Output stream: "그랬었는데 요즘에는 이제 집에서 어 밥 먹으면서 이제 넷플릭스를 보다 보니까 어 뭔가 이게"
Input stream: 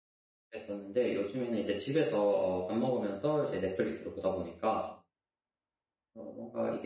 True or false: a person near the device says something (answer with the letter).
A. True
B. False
B